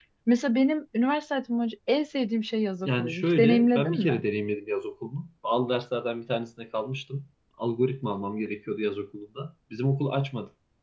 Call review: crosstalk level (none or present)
present